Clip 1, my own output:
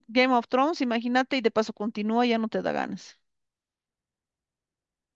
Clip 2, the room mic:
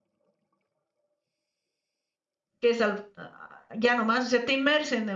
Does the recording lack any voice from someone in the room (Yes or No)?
No